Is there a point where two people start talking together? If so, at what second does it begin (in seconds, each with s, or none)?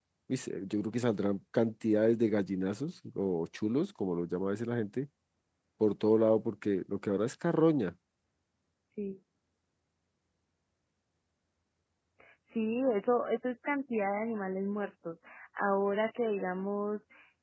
none